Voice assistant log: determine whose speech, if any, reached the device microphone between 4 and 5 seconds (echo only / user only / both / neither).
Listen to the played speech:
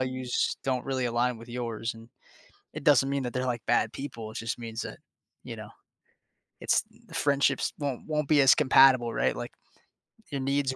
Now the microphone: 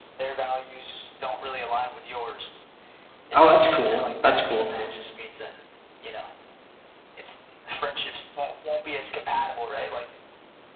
both